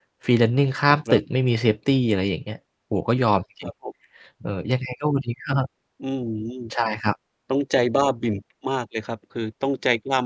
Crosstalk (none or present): none